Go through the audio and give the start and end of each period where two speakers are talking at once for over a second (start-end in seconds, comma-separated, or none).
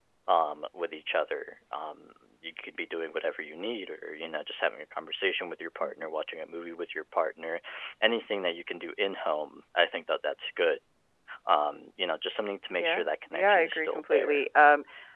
12.8-14.4